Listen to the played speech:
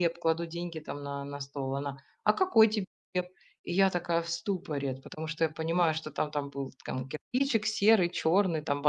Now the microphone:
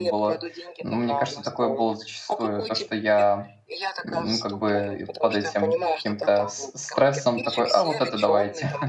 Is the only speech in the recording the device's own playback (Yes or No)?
No